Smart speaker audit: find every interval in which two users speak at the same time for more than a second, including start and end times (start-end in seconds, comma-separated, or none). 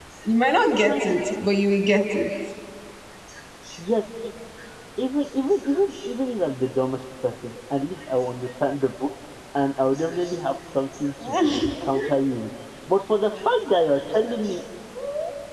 none